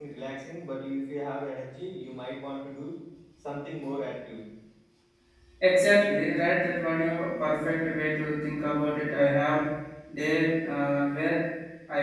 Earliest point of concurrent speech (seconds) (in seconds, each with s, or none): none